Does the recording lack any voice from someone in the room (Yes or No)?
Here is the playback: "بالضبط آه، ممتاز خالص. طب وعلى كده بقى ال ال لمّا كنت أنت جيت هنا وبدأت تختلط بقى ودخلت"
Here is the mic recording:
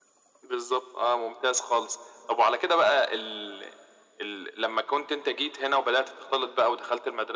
Yes